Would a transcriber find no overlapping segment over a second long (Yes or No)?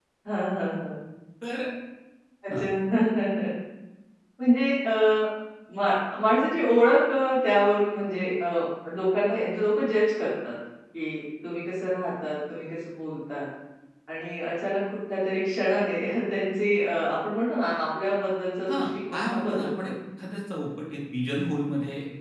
No